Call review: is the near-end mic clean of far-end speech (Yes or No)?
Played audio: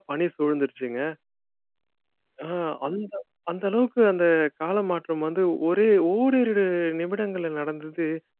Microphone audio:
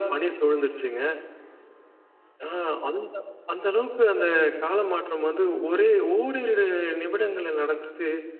No